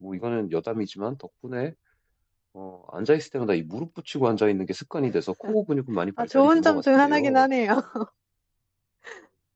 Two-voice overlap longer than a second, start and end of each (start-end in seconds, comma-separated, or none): 6.2-7.5